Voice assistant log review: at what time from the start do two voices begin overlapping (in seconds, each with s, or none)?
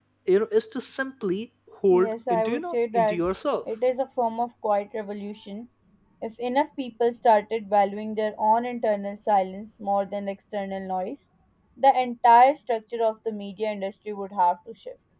1.9 s